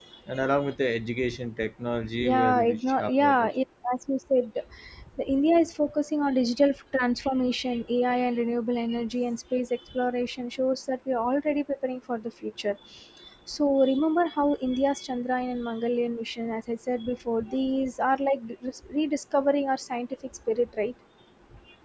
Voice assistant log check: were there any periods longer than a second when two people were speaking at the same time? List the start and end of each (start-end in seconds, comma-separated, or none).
2.2-3.5